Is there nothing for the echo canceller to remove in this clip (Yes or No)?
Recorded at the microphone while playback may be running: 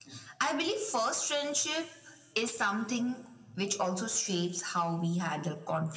No